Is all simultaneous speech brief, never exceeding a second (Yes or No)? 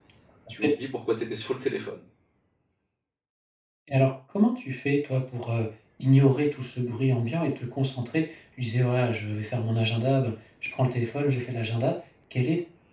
Yes